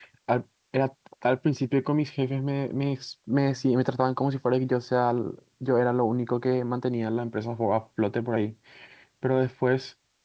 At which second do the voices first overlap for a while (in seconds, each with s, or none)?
none